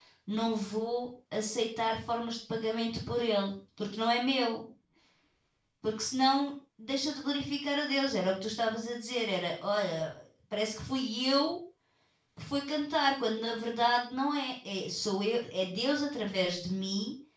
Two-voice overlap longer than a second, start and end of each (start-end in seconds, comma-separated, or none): none